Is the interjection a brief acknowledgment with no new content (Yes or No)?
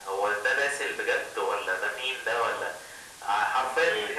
No